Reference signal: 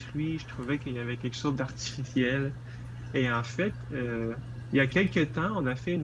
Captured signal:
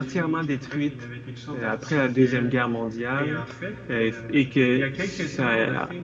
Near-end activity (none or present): present